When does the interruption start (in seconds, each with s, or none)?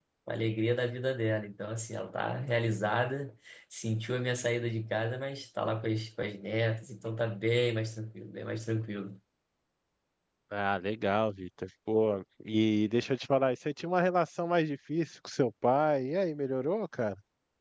none